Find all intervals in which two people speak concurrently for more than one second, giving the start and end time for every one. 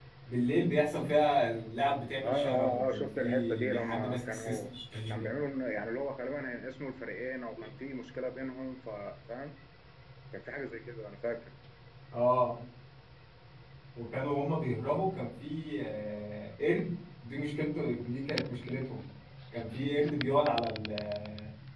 2.2-4.6

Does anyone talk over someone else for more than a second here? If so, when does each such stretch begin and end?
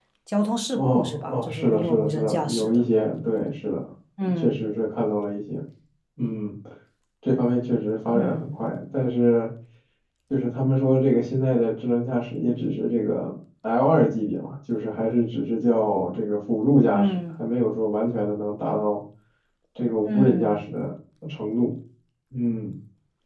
0.7-2.8

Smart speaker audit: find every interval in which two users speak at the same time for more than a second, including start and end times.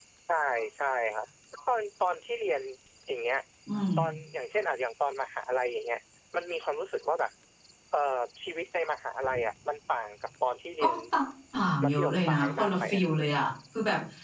11.8-13.0

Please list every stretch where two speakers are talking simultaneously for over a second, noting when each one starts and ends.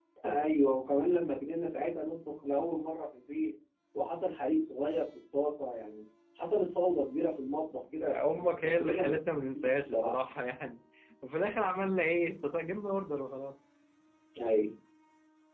8.1-10.1

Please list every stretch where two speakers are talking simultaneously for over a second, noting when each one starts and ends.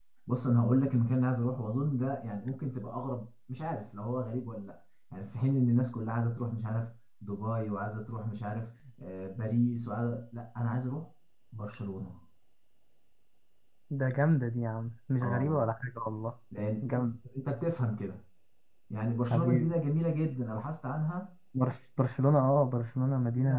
none

